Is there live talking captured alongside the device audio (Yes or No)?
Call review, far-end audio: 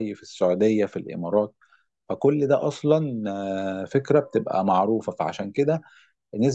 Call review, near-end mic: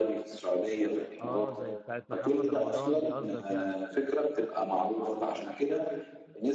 Yes